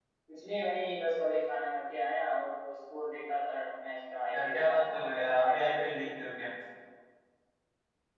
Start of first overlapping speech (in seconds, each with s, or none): 4.3 s